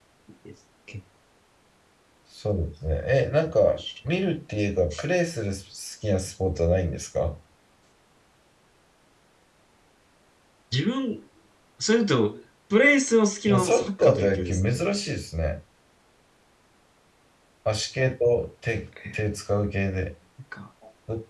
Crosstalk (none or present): present